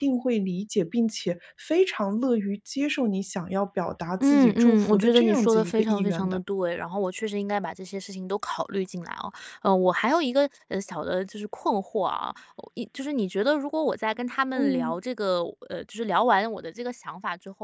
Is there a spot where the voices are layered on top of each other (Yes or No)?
Yes